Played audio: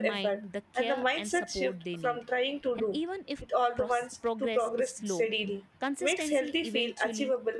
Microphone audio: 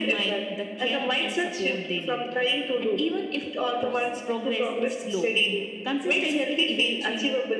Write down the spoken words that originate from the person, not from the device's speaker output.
none

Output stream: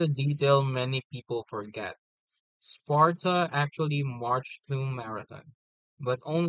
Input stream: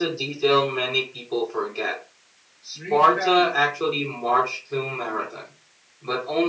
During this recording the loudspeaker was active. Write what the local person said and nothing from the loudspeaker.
Greece panicked,

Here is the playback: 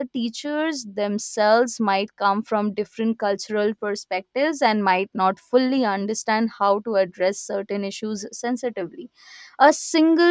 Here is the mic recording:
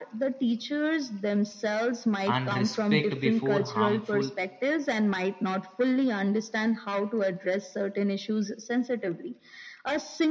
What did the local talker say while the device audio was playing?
and respect before harmful

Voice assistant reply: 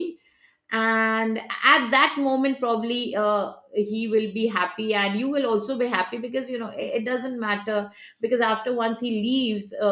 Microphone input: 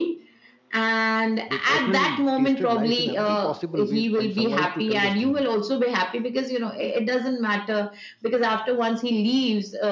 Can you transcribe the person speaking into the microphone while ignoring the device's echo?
they personally tasted life in every possible way and survived to tell the story

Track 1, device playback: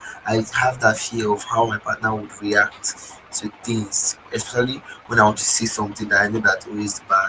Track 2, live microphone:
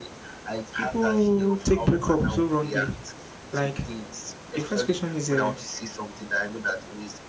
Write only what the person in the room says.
people take breakup so wrongly. Like the first question is, uh,

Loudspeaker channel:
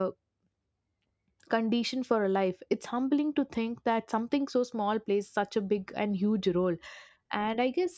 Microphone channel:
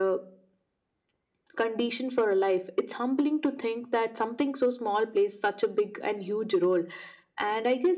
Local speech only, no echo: none

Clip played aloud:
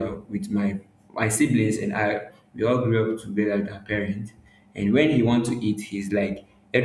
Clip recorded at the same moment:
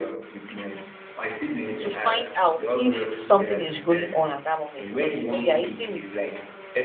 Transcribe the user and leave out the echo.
to find out if something is going on at that moment because you know you're eating with

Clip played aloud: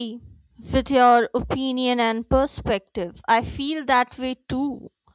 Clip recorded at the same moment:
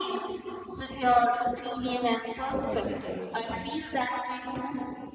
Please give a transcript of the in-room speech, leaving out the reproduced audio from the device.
the husband's arrest and

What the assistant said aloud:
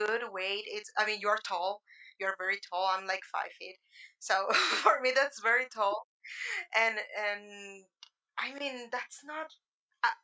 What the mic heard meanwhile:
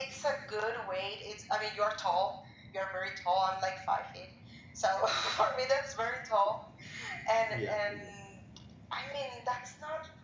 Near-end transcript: Yeah. exactly.

